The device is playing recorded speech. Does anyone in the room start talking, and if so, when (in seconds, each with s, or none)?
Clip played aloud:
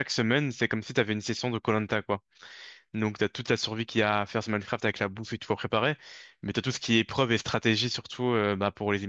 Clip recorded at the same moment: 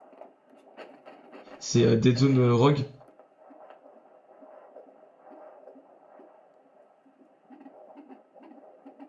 1.6 s